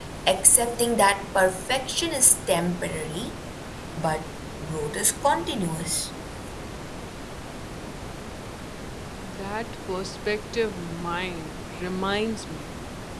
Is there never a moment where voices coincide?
Yes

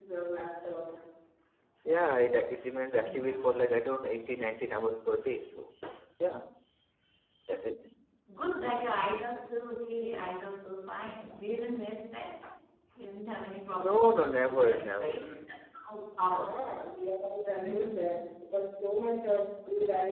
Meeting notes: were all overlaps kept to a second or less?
No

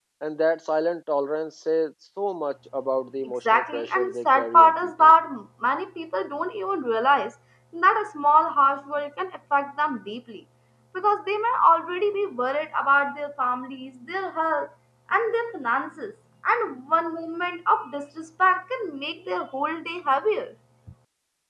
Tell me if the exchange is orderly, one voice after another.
No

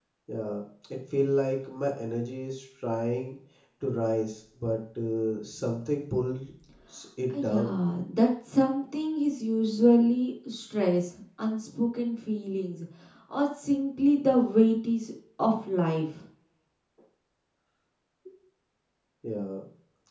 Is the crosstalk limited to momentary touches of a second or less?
Yes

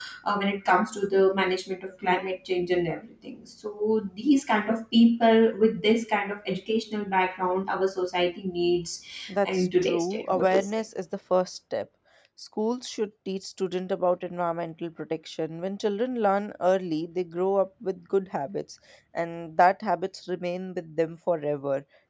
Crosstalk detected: Yes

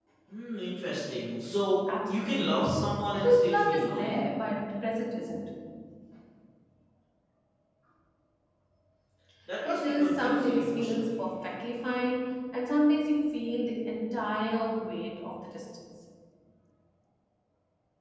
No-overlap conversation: No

